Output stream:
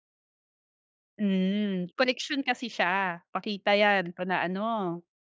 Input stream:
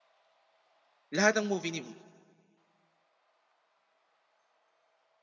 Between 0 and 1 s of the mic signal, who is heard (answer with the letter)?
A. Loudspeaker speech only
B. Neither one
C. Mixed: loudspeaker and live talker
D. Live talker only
B